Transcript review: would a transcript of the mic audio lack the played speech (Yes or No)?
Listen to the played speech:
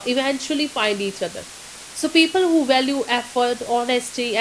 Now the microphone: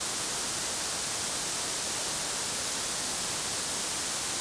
Yes